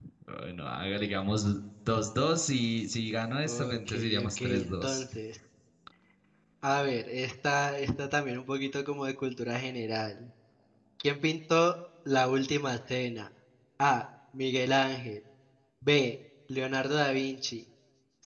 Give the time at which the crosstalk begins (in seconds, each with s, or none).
3.5 s